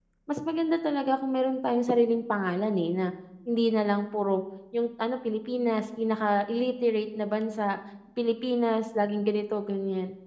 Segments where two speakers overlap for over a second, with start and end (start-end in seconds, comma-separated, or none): none